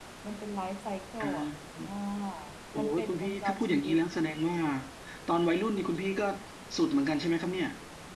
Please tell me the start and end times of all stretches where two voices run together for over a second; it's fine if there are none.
2.8-4.0

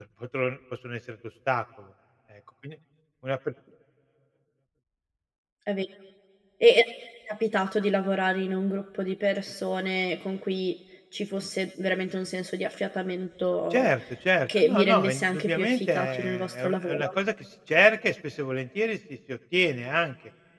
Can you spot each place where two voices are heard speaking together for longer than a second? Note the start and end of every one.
14.6-17.1

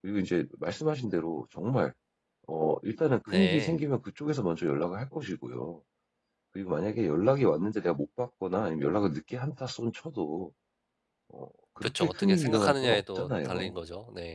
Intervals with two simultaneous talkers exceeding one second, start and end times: 11.8-13.8

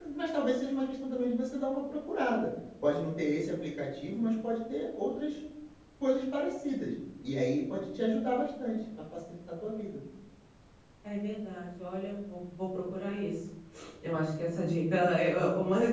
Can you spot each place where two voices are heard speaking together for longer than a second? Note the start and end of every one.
none

